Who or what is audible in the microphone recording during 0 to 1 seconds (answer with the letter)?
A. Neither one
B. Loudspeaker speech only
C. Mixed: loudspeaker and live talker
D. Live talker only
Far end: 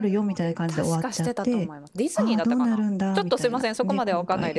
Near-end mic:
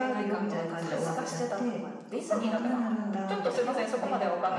C